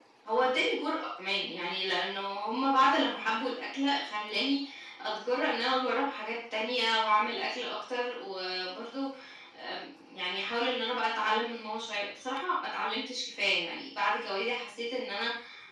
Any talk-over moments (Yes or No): No